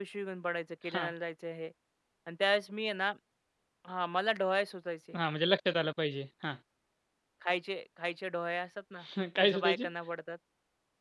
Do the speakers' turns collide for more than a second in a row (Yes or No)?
No